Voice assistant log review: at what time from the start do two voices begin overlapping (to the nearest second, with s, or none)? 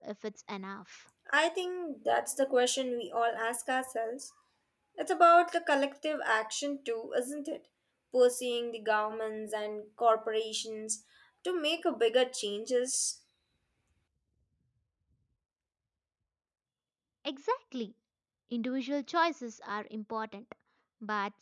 none